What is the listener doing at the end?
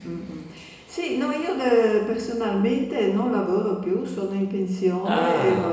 listening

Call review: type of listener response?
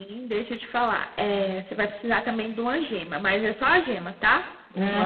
listening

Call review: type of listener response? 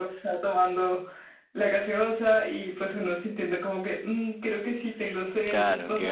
taking over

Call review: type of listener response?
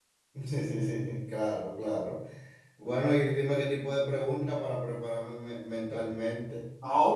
taking over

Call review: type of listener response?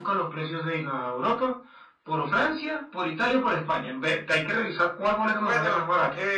taking over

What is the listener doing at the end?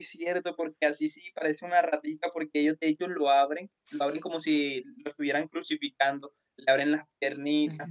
listening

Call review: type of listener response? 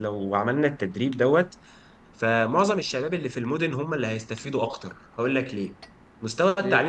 listening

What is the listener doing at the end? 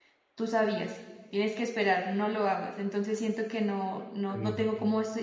listening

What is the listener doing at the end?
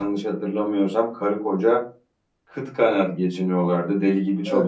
listening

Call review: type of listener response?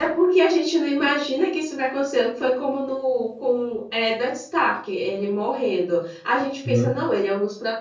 listening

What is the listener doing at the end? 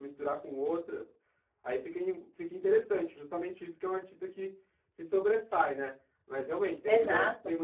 listening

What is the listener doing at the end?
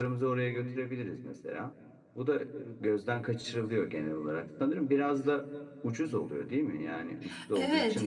taking over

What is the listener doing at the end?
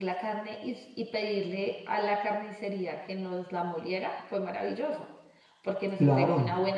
listening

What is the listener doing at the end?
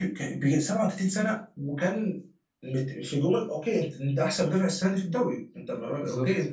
listening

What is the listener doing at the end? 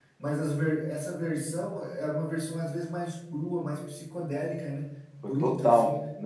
taking over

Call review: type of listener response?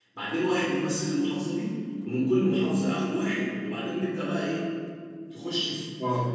taking over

